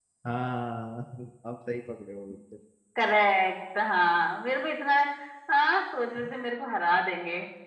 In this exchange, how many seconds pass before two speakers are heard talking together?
none

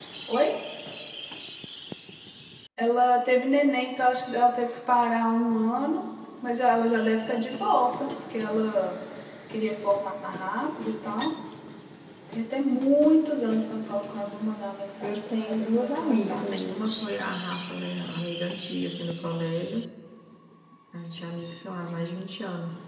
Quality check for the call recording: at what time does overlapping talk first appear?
15.0 s

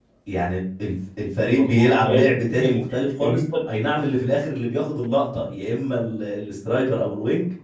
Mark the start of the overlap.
1.5 s

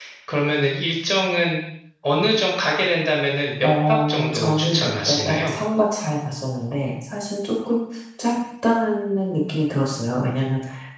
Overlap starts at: 3.6 s

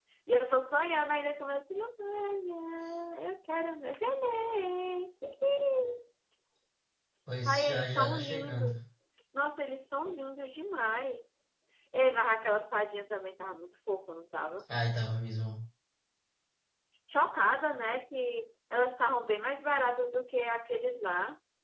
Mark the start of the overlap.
7.4 s

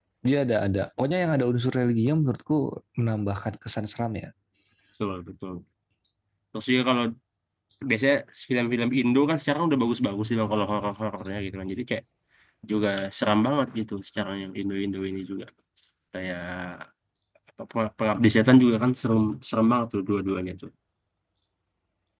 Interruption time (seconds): none

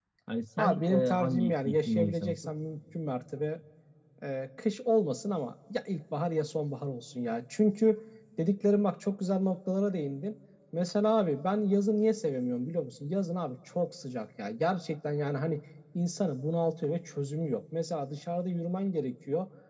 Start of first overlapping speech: 0.6 s

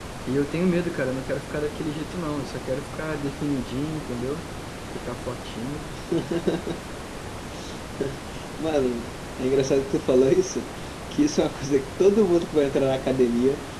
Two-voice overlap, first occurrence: none

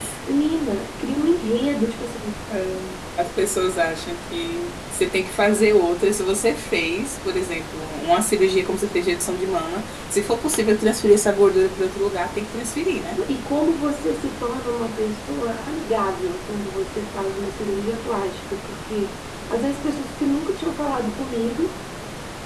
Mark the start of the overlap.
none

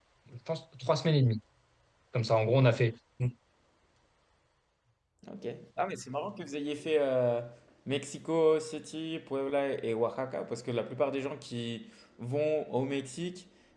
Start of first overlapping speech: none

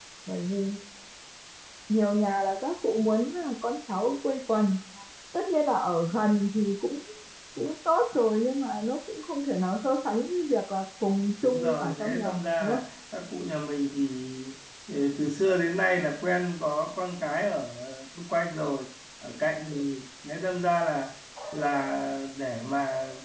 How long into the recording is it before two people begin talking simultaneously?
11.4 s

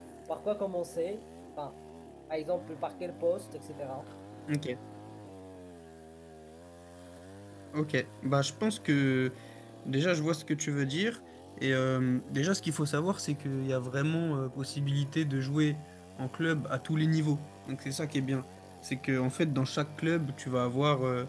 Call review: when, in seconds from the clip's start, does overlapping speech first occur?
none

